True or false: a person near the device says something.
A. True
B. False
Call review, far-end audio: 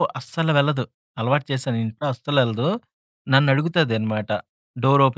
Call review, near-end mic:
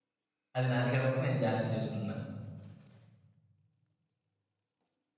A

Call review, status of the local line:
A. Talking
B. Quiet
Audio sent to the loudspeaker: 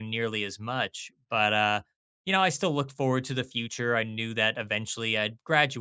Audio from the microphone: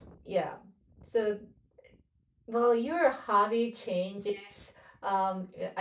A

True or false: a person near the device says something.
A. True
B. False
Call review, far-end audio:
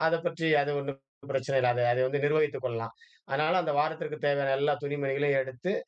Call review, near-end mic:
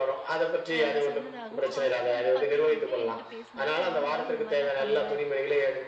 A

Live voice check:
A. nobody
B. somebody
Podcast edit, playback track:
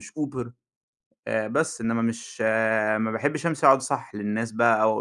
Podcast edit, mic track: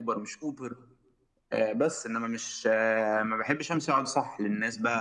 A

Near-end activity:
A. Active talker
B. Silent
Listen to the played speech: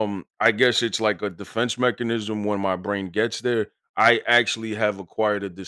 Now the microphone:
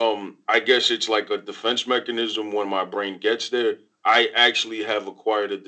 B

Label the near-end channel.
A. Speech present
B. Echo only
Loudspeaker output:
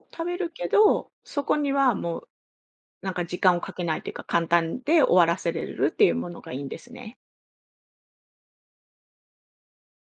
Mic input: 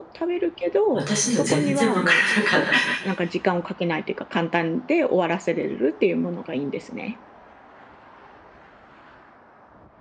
A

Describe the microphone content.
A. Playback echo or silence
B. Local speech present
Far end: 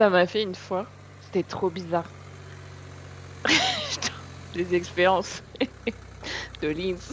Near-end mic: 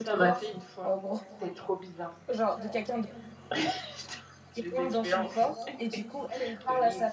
B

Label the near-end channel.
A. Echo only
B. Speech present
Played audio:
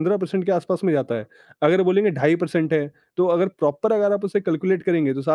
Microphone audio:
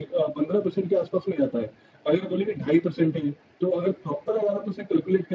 A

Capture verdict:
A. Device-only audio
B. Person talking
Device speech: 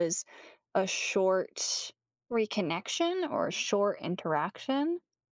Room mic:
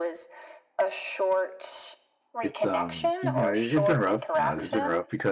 B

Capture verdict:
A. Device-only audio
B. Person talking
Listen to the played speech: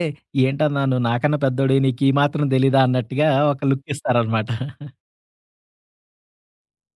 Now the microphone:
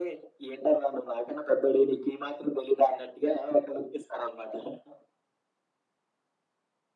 A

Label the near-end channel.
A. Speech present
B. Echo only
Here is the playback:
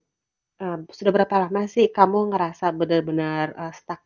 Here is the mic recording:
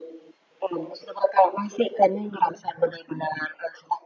B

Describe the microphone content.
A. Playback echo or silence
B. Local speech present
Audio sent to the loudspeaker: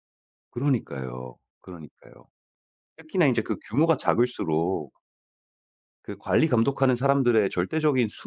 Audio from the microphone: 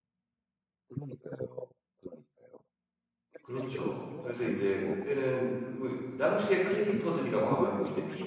B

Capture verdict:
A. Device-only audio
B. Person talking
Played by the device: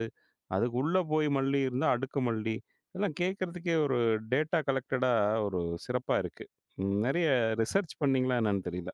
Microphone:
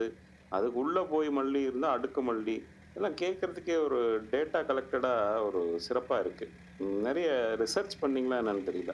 A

